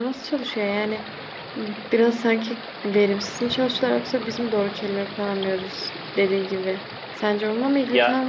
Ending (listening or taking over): listening